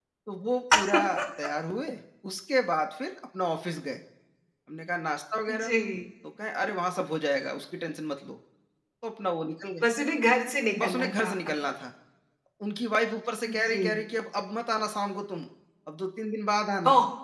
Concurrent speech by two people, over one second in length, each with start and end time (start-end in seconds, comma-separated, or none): none